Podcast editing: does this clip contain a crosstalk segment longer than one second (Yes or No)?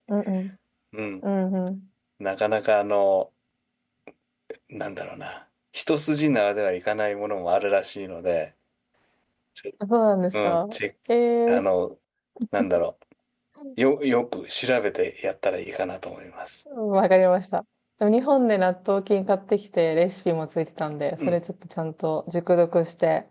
No